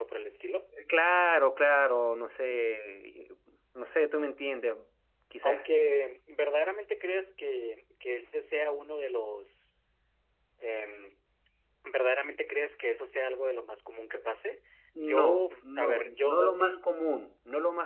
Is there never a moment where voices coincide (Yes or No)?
No